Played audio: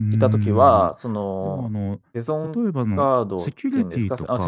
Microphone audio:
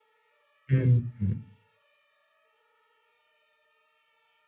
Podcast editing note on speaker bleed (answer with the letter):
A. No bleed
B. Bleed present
A